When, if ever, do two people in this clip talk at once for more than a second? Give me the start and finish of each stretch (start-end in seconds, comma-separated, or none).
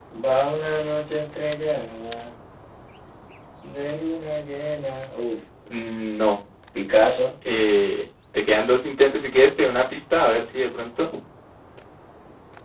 none